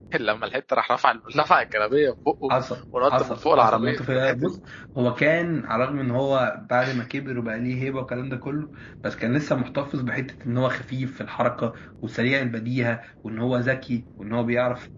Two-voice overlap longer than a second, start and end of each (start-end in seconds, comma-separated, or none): 3.1-4.6